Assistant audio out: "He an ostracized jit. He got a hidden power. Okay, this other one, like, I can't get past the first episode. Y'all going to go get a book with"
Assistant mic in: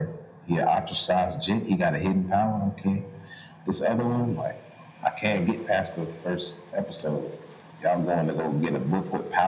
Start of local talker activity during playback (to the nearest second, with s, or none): none